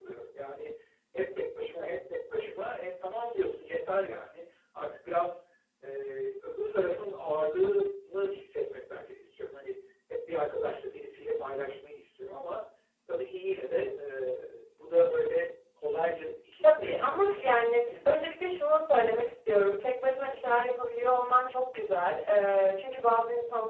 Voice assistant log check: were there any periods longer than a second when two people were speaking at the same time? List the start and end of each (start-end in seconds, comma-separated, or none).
16.6-18.1